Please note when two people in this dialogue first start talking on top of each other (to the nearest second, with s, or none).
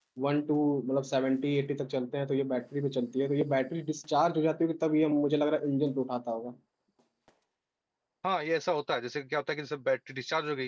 none